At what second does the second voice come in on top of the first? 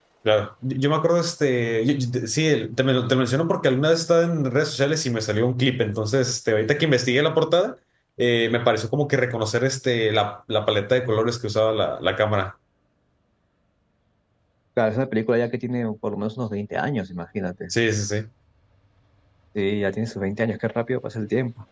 none

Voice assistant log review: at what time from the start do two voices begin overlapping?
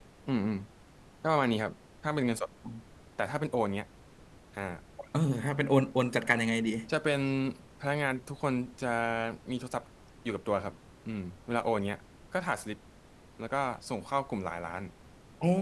none

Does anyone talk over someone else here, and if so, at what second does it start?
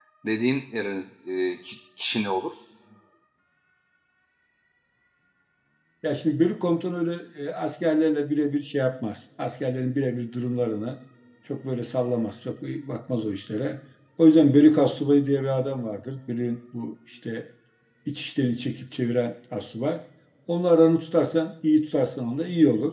none

